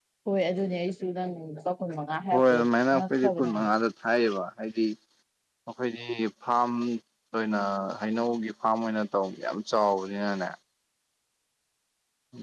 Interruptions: present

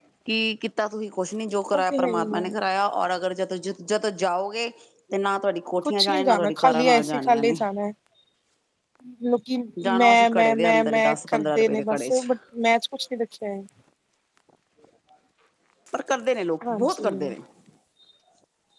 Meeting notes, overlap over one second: present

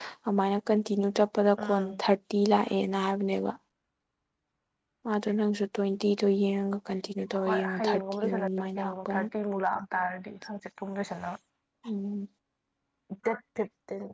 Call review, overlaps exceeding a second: present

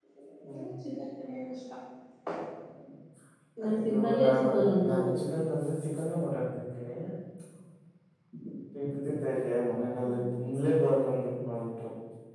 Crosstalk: present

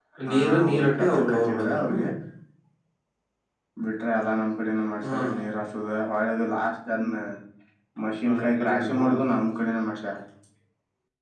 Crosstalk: present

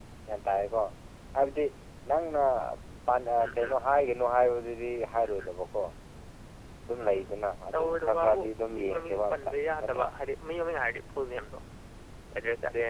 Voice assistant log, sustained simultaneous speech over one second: present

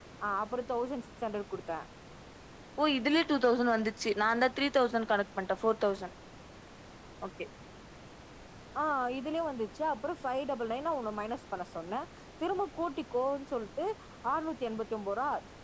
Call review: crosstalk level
none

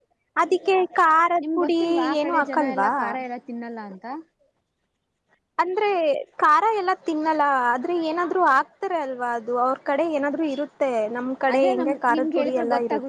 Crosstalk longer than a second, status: present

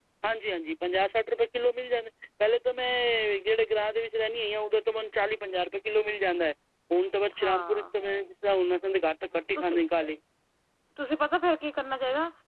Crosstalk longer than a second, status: none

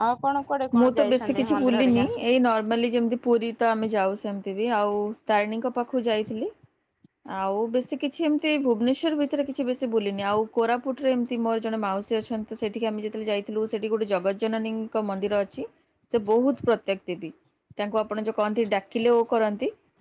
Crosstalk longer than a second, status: present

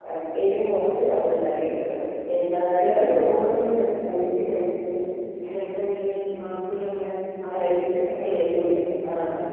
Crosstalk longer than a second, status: present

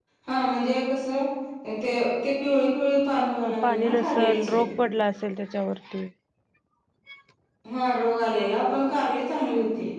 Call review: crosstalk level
present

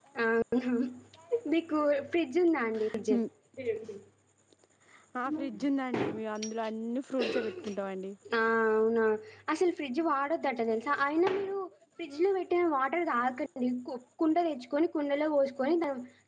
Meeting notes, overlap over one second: none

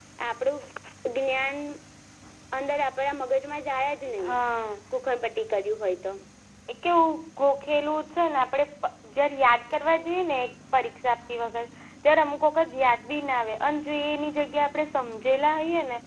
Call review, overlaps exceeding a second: none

